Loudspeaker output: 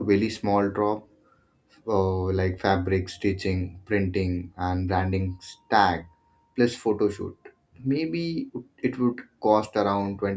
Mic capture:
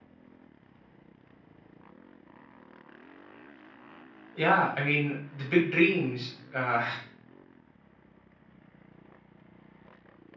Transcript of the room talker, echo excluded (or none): Yeah, I mean the big dreams, uh,